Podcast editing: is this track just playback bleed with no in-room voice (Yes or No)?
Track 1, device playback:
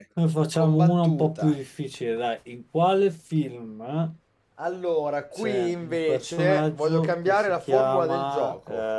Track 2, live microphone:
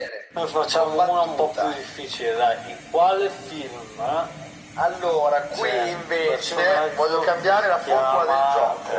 Yes